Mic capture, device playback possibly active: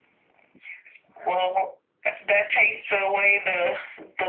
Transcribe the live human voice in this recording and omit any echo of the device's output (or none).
none